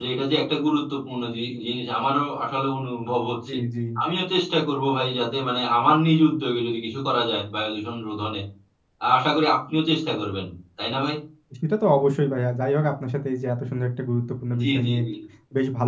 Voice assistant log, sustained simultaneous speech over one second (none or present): none